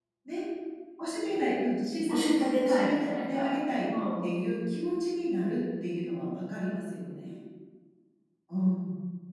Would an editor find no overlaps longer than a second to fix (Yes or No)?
No